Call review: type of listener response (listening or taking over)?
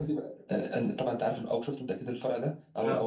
listening